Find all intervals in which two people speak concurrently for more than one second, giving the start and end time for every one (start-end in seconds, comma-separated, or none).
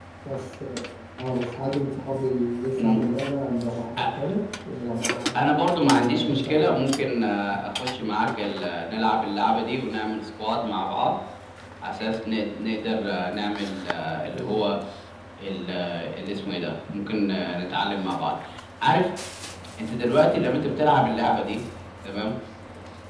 5.8-7.1